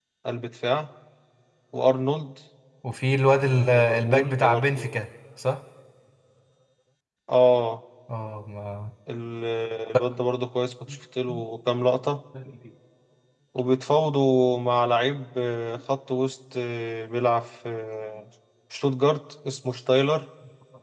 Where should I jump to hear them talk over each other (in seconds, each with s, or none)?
3.5 s